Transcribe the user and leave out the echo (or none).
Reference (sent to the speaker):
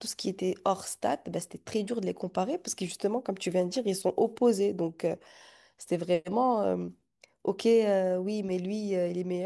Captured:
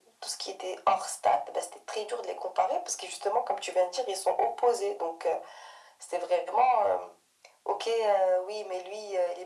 none